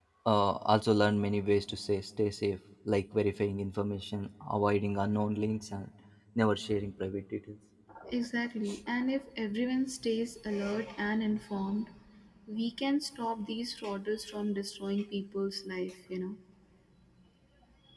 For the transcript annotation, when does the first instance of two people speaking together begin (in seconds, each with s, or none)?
none